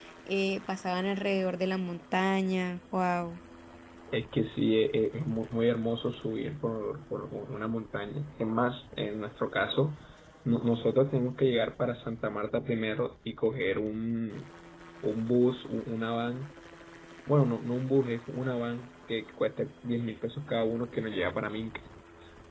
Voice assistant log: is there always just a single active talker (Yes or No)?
Yes